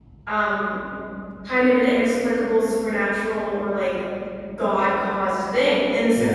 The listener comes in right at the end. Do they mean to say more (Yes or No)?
No